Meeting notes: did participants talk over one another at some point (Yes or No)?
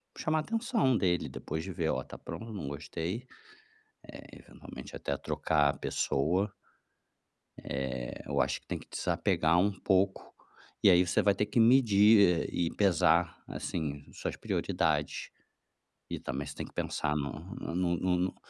No